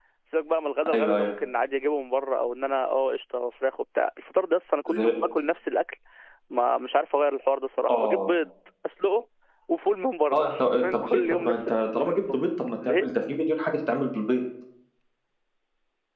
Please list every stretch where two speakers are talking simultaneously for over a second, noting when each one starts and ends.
10.3-12.4

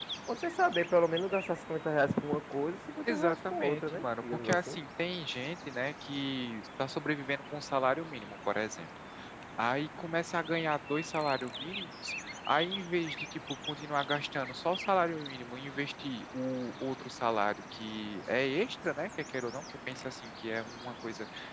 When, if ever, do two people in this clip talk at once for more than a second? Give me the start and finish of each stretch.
3.1-4.8

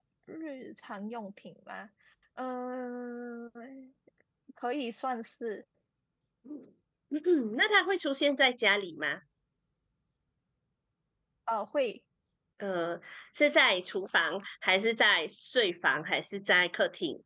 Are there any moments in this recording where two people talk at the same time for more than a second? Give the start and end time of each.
none

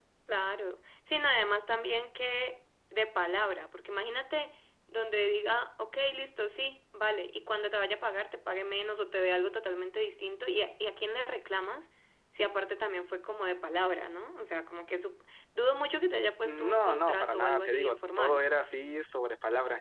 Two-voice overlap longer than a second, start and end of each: 16.4-18.4

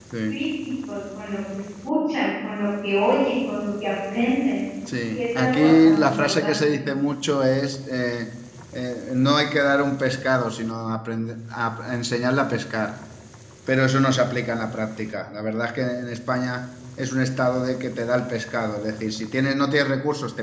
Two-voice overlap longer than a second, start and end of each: 5.1-6.8

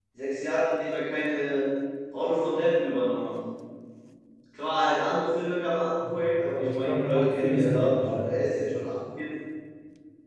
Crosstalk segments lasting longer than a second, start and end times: 6.0-8.3

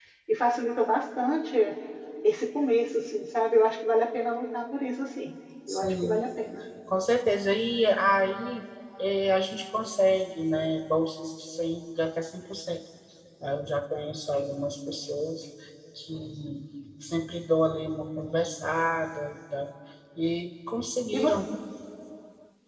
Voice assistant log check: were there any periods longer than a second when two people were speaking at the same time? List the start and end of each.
none

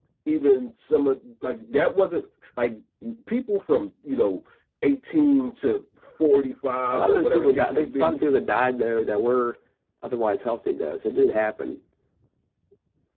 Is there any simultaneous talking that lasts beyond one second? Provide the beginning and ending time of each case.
6.9-8.2

